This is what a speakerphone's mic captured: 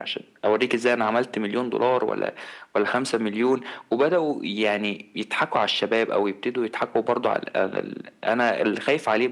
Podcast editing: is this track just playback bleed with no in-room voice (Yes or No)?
Yes